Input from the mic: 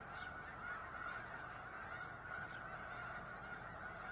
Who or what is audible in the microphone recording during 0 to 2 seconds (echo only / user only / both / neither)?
neither